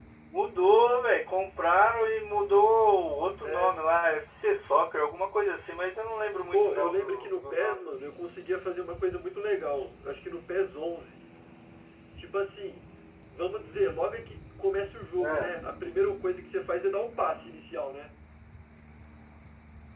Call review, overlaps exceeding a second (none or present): present